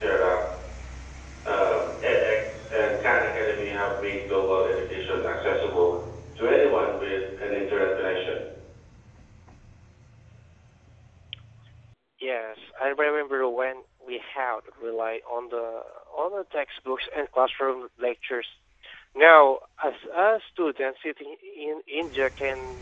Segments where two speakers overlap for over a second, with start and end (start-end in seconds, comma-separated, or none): none